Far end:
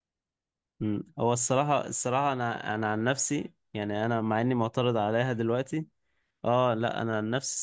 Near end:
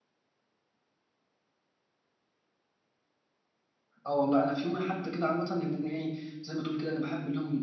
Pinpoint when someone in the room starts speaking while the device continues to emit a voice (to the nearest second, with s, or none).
4 s